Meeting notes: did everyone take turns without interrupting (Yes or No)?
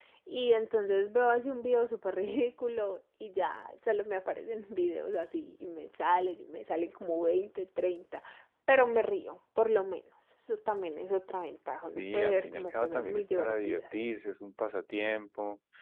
No